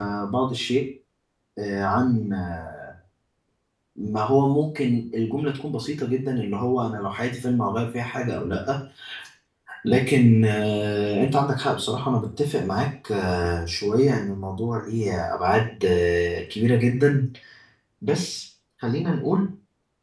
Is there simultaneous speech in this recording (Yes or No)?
No